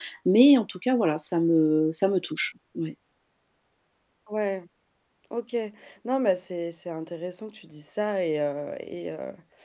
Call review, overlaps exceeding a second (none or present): none